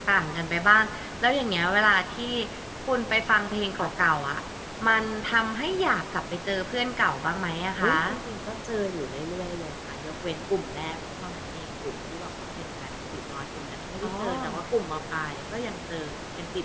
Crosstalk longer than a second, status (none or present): none